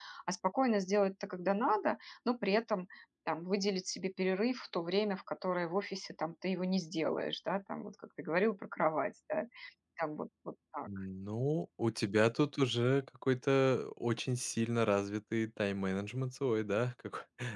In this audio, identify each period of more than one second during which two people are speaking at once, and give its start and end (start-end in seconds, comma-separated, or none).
none